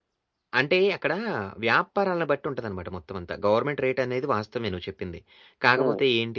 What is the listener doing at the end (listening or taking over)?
listening